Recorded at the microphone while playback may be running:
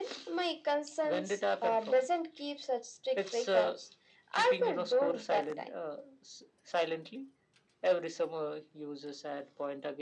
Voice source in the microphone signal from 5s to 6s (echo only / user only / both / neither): echo only